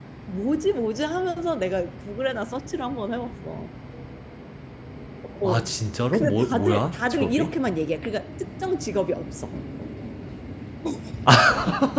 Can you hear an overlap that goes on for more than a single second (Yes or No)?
Yes